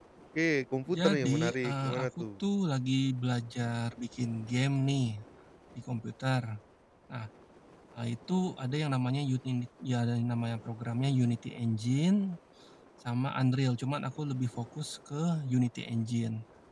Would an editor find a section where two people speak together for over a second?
Yes, from 0.9 s

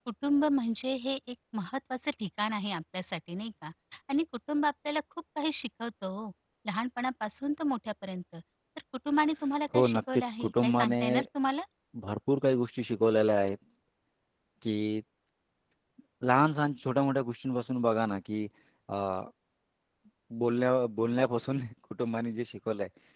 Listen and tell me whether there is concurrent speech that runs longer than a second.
Yes, from 9.7 s

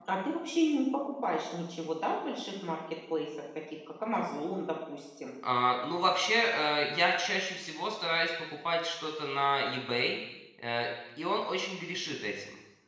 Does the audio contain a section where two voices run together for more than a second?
No

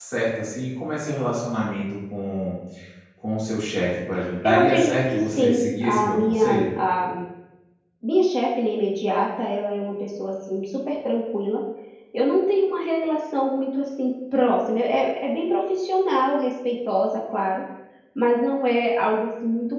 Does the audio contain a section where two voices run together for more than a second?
Yes, from 4.4 s

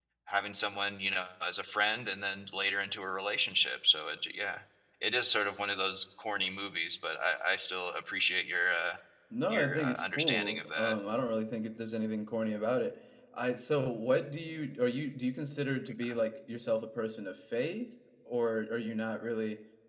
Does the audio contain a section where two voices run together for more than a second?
Yes, from 9.5 s

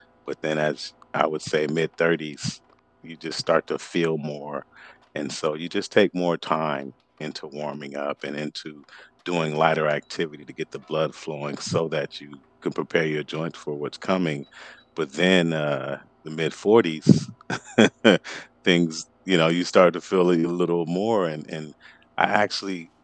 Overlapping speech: No

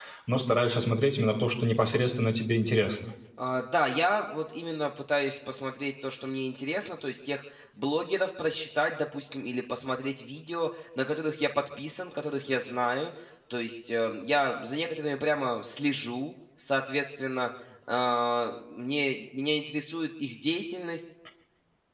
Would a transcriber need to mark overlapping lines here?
No

